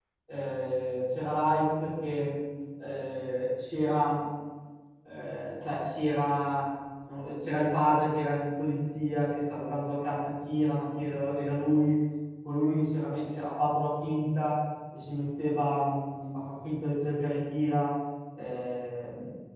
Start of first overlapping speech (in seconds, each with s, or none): none